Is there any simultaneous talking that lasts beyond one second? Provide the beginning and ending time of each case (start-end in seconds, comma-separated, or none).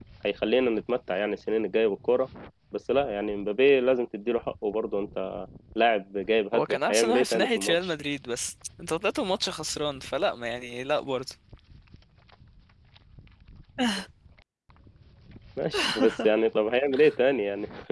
6.5-7.9